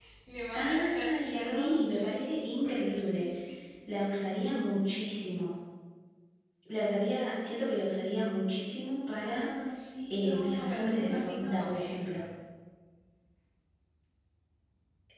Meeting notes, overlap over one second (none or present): present